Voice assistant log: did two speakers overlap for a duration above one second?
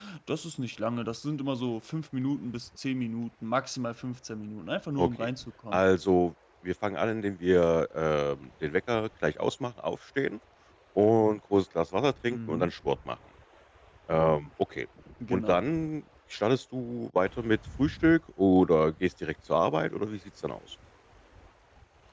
No

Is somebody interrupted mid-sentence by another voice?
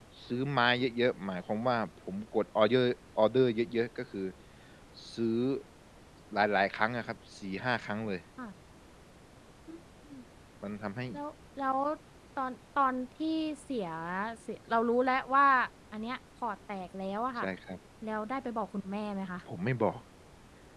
No

